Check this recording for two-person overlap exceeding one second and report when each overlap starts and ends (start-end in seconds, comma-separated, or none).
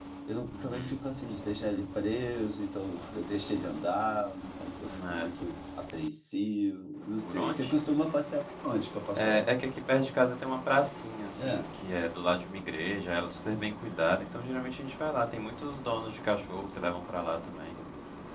none